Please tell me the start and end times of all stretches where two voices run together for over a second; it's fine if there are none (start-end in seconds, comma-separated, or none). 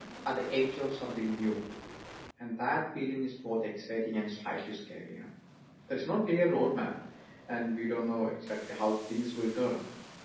none